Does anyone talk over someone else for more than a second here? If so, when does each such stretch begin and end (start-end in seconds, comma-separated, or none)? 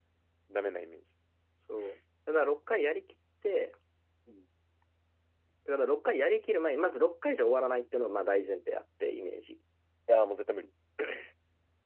none